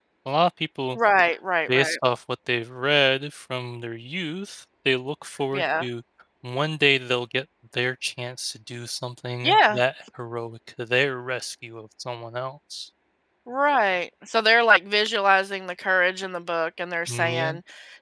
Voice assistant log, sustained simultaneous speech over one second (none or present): none